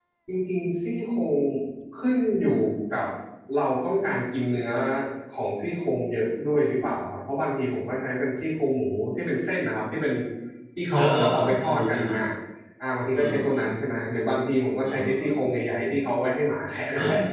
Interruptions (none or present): present